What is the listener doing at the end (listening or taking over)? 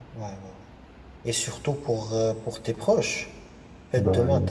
listening